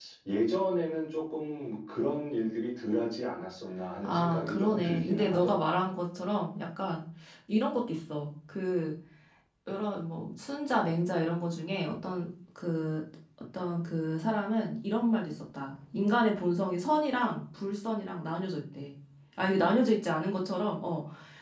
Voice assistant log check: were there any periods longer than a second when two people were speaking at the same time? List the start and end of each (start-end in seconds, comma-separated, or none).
4.0-5.6